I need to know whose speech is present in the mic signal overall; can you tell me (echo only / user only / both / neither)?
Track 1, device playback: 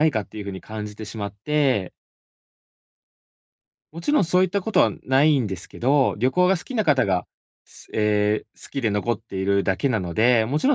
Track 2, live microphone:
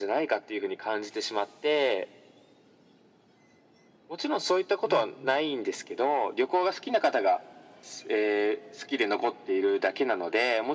both